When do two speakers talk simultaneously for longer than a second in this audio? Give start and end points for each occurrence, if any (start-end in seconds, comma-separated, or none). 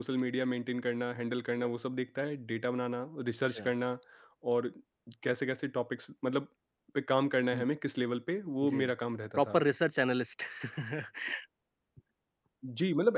none